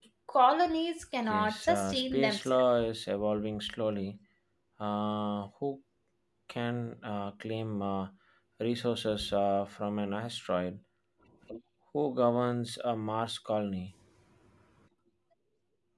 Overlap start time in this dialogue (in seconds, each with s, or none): 1.3 s